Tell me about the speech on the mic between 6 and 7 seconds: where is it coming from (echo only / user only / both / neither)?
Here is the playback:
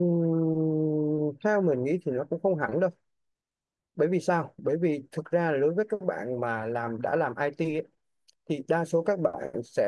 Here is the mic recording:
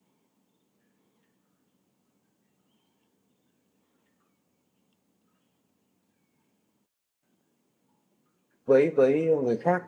neither